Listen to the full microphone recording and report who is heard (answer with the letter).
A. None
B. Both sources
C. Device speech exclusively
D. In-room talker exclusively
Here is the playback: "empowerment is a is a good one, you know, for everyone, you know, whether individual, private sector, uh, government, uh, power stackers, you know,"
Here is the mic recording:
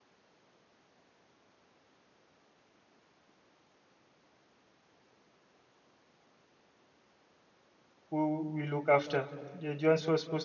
D